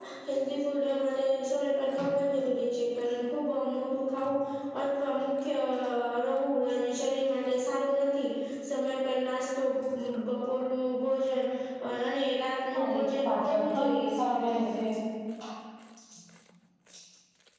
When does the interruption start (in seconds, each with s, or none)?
12.7 s